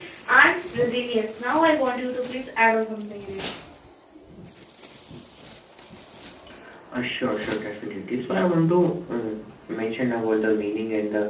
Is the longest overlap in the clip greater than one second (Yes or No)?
No